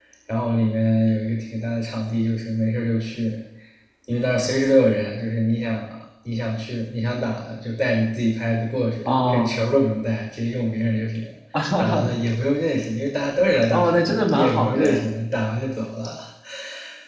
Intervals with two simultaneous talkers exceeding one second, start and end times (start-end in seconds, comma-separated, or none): 13.7-15.1